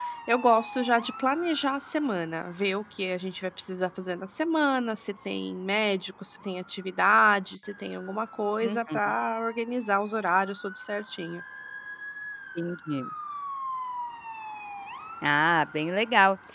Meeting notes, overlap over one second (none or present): none